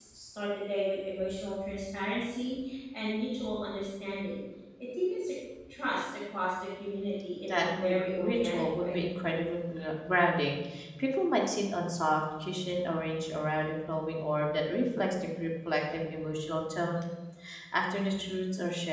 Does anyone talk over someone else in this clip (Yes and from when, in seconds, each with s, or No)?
Yes, from 7.5 s